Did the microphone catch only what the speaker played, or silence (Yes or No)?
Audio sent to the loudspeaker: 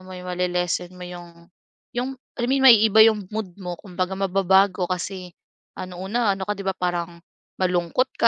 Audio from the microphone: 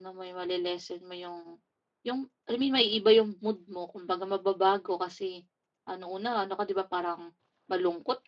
Yes